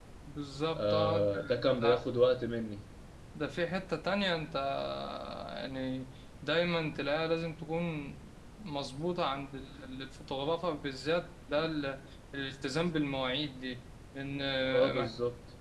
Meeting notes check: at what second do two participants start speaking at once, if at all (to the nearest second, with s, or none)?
1 s